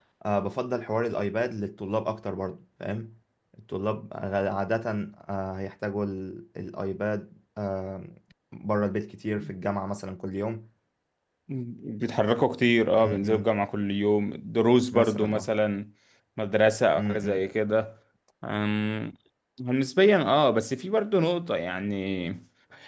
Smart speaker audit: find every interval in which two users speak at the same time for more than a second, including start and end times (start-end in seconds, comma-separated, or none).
none